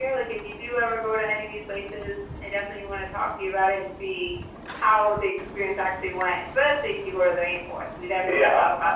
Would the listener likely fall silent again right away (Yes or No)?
No